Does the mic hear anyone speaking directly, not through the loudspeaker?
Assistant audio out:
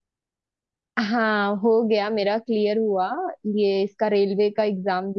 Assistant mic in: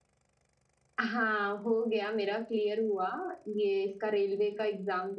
No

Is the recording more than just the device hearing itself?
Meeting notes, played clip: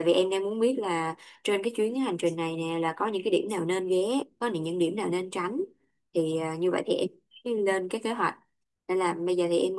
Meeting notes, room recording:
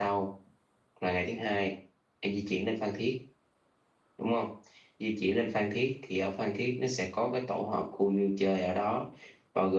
Yes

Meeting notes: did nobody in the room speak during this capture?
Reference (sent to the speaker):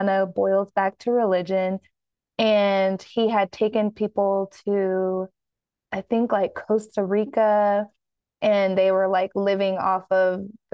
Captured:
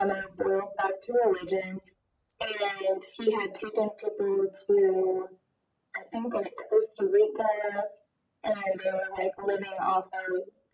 Yes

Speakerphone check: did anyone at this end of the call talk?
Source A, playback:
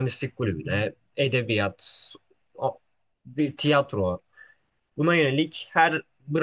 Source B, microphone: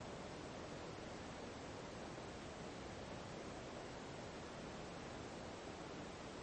No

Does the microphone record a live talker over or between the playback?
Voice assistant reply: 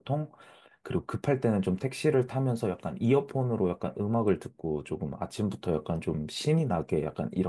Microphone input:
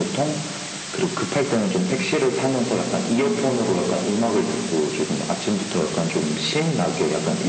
No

